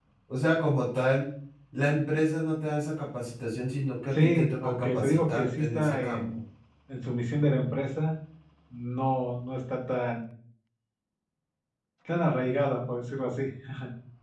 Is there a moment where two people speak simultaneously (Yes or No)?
Yes